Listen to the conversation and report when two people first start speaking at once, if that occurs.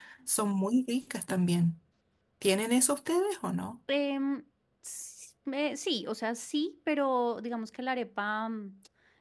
none

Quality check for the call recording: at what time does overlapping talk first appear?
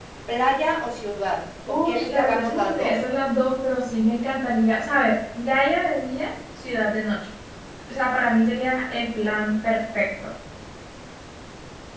2 s

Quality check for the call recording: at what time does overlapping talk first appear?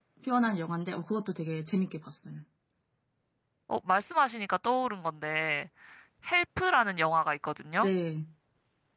none

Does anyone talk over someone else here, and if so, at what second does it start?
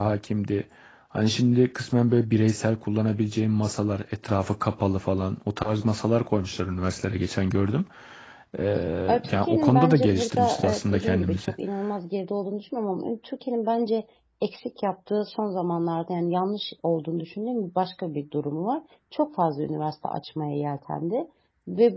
9 s

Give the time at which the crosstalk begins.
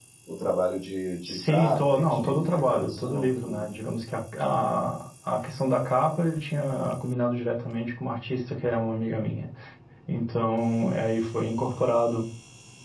1 s

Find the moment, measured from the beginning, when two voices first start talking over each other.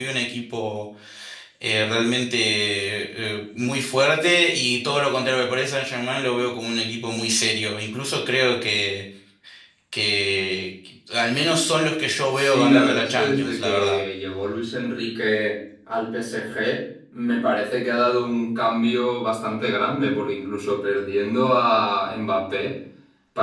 12 s

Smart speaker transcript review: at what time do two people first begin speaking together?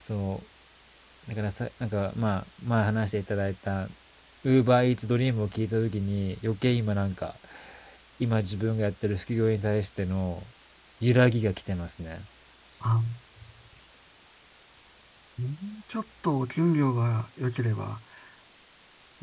none

